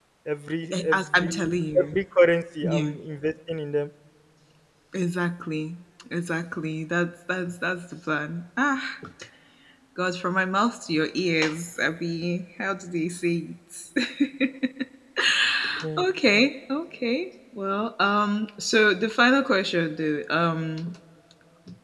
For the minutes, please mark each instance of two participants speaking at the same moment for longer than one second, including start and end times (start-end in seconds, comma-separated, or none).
0.7-1.9